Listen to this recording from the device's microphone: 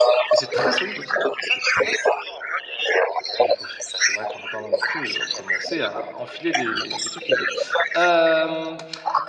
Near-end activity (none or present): present